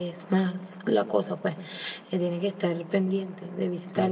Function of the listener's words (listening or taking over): listening